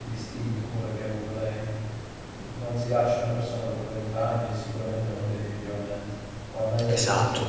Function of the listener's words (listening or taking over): taking over